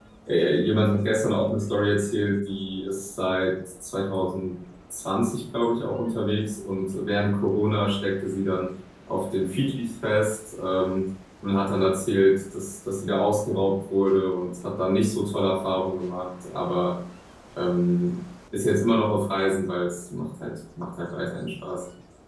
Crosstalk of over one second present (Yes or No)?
No